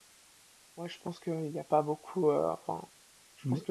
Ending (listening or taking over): listening